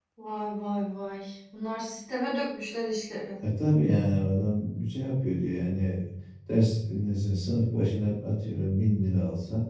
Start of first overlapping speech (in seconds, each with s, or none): none